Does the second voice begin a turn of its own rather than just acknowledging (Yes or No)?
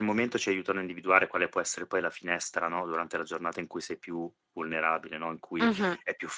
No